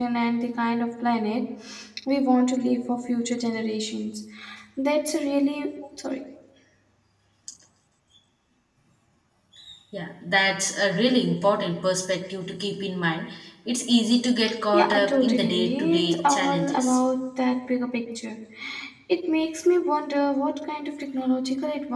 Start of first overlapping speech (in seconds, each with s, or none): 14.7 s